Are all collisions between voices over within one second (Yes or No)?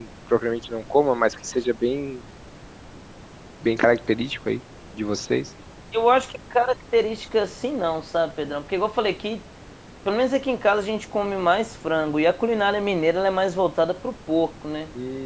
Yes